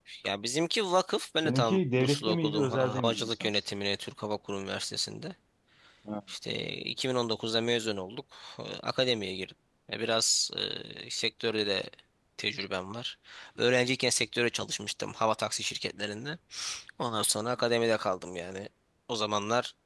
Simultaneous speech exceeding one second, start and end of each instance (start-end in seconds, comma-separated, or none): 1.4-3.5